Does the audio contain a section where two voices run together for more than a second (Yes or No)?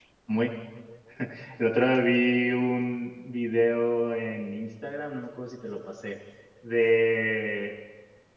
No